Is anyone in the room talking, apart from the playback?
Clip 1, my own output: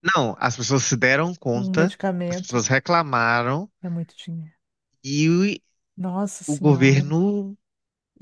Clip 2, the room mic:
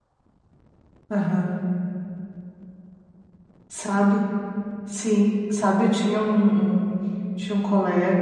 Yes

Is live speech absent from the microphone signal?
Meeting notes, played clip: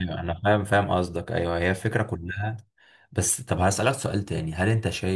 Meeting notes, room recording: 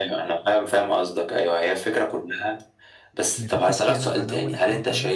No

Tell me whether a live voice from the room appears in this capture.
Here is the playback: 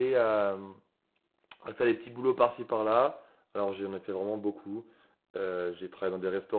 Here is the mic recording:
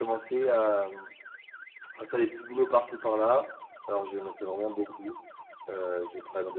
No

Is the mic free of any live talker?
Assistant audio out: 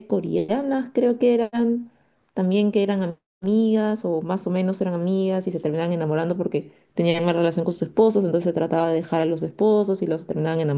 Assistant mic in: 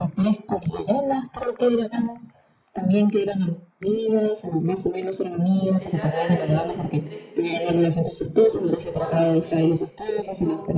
No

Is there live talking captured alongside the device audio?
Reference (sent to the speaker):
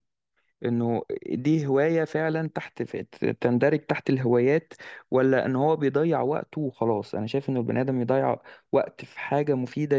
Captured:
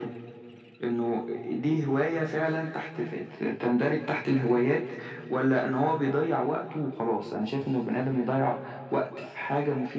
No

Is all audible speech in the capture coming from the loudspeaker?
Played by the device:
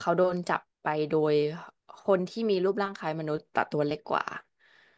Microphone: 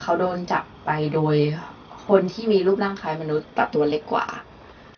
Yes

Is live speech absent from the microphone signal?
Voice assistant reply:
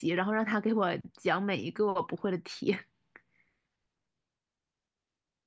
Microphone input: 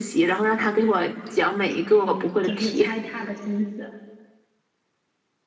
No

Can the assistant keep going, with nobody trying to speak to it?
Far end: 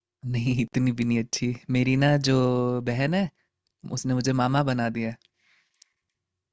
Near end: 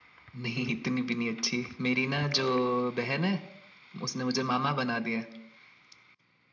Yes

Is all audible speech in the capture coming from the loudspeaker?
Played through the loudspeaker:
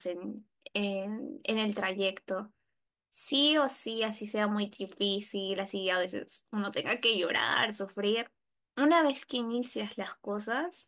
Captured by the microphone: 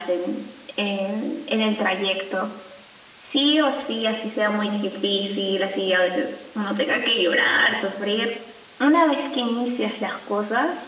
Yes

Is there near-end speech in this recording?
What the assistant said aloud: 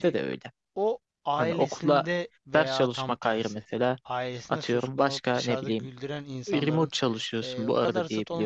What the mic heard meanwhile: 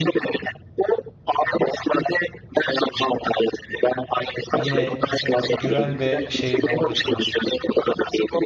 Yes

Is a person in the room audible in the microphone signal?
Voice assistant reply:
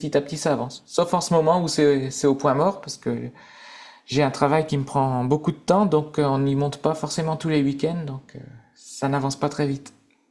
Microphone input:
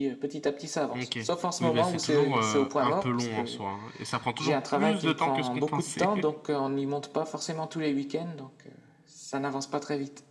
Yes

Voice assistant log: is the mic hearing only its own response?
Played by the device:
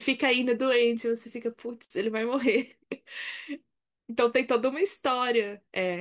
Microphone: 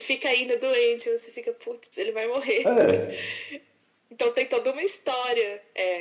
No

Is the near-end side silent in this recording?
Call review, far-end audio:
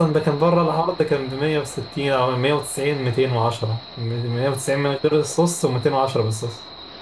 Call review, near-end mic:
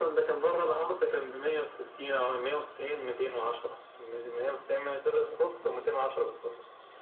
Yes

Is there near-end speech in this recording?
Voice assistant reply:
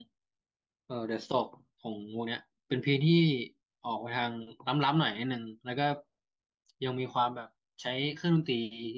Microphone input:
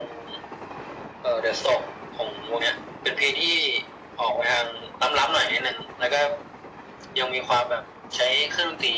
No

